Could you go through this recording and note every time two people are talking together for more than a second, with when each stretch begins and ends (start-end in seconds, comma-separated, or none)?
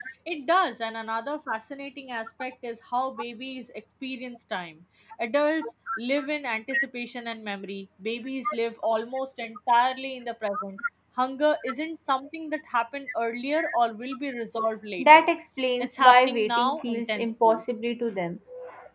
15.8-17.6